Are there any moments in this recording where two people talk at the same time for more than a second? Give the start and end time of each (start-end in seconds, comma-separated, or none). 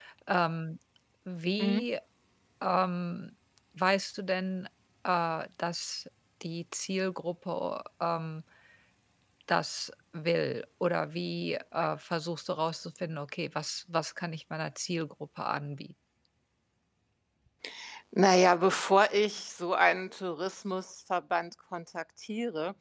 none